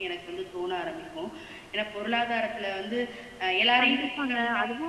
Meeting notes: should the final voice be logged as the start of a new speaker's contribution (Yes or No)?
Yes